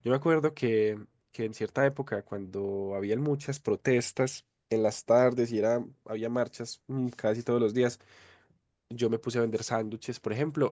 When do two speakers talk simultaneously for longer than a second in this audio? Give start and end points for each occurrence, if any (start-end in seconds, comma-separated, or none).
none